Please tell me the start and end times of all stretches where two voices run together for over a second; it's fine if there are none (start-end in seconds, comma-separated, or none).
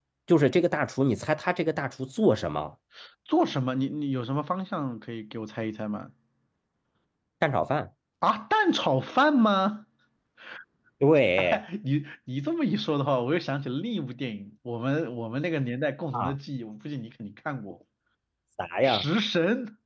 none